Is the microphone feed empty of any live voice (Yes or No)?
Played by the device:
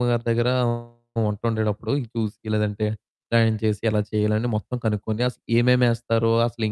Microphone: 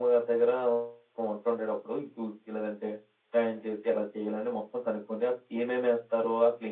Yes